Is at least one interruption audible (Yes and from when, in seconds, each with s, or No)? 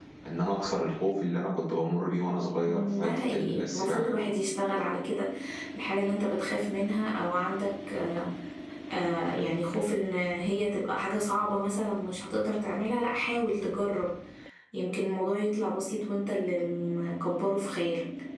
Yes, from 2.7 s